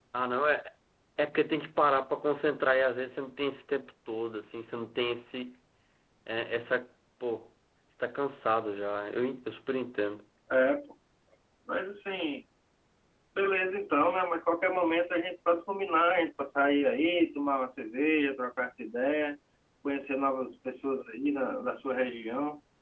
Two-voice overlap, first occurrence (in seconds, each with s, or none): none